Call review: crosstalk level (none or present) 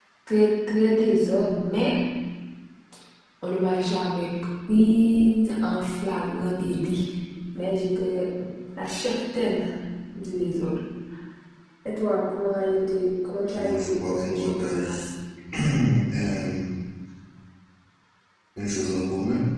present